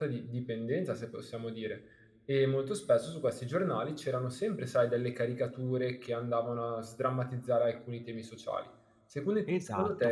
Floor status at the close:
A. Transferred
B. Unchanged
A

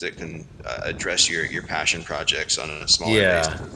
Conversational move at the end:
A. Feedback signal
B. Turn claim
B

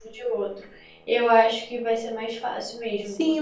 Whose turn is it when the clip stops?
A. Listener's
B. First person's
A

